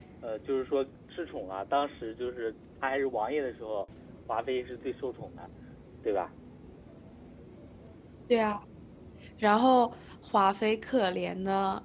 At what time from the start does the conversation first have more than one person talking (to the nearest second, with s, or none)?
none